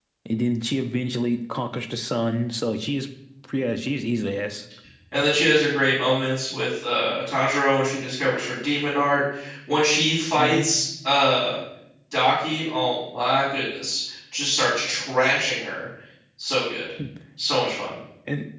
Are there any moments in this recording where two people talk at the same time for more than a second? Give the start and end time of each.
none

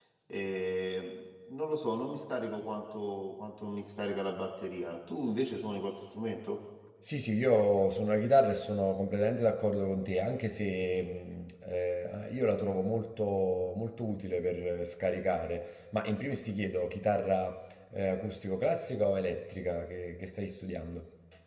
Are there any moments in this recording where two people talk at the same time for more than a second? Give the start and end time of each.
none

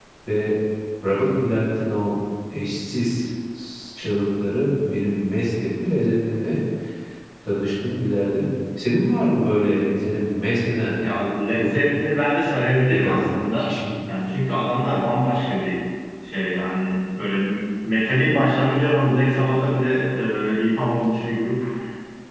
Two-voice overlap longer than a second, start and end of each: none

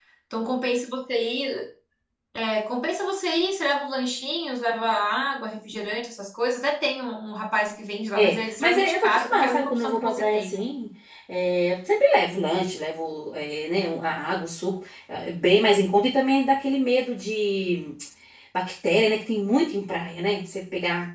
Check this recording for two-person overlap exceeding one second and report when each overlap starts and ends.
8.2-10.6

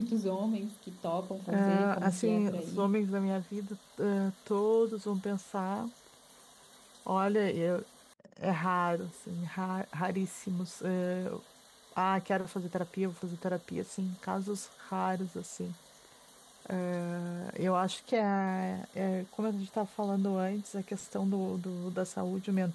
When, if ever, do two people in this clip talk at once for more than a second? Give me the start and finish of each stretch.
1.5-2.9

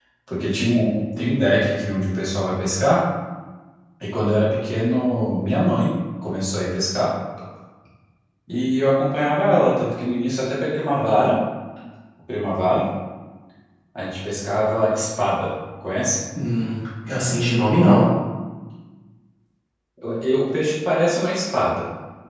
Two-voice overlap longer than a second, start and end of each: none

